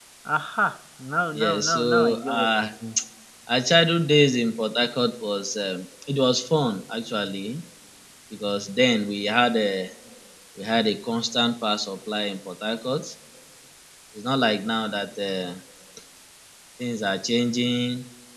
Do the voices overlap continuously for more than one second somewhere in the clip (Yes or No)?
Yes